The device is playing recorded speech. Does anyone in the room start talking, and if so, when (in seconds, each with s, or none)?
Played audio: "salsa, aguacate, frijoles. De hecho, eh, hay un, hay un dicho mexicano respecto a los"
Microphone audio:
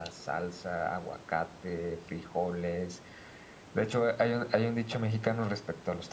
none